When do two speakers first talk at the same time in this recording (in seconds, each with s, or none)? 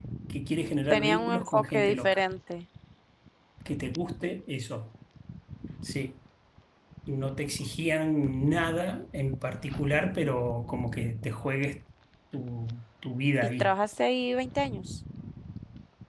0.9 s